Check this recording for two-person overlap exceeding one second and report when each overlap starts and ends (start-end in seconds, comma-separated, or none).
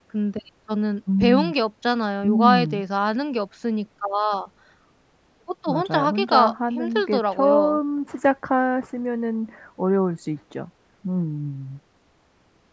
5.7-7.8